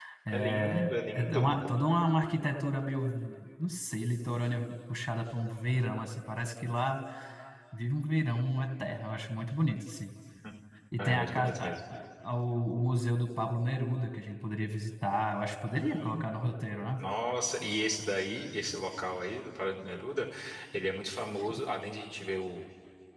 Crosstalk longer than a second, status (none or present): present